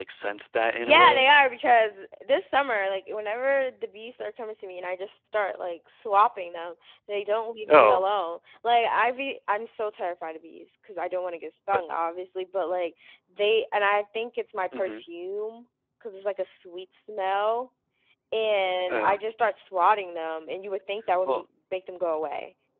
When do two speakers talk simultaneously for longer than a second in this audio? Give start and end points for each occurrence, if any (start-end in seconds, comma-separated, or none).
none